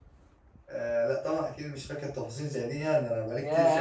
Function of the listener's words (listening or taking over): taking over